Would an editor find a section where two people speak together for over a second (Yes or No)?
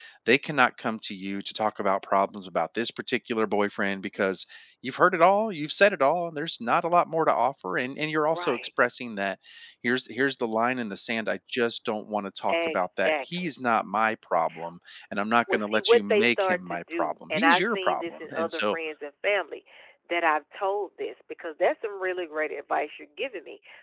Yes